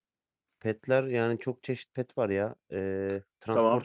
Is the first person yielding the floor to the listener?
Yes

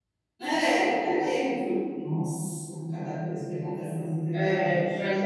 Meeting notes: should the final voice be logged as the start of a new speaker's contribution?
Yes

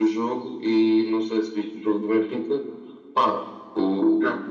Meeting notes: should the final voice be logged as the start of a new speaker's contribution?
No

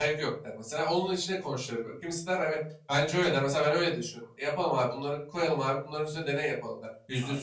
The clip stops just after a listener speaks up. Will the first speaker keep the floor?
Yes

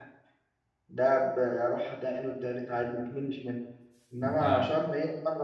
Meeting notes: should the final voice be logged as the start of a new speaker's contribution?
No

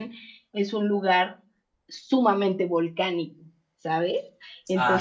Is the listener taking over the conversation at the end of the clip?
Yes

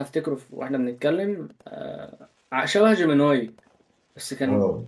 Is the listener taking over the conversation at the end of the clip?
No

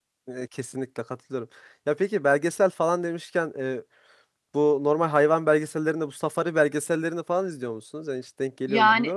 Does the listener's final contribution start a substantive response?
Yes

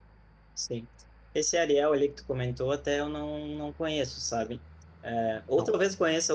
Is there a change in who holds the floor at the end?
No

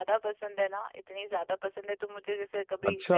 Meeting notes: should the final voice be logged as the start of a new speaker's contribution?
No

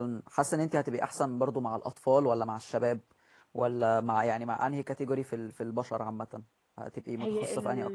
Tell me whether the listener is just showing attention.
No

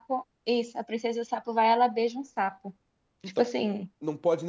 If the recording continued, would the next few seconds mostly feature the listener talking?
Yes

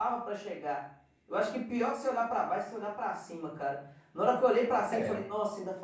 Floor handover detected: No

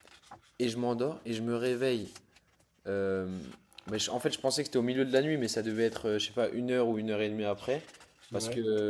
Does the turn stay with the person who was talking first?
Yes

